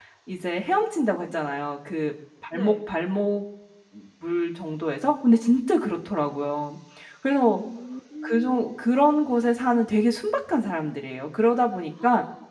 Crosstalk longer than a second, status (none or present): none